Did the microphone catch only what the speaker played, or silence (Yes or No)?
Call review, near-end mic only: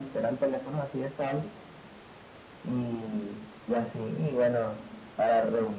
Yes